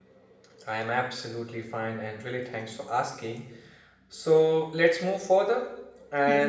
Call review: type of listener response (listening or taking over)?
listening